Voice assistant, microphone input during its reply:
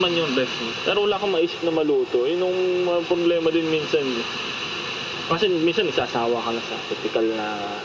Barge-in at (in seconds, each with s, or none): none